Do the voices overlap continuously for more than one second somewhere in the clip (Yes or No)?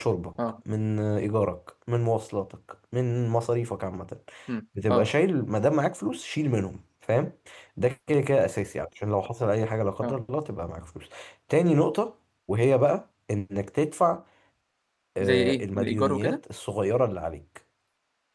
Yes